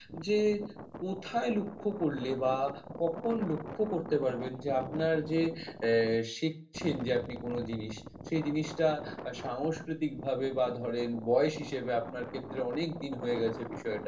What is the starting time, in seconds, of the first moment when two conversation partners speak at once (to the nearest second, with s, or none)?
none